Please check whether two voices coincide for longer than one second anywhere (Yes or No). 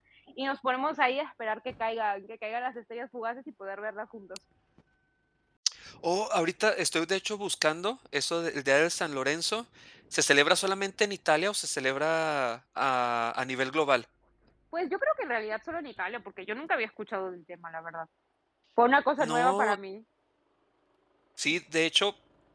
No